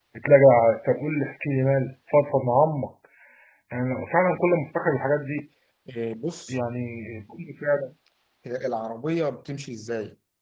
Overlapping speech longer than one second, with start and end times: none

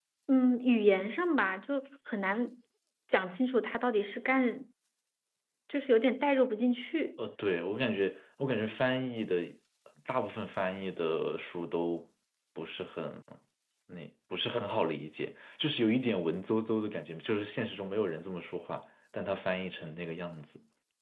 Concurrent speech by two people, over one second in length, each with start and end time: none

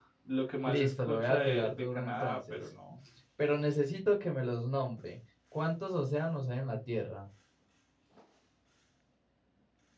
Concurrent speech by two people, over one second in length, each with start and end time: 0.6-2.7

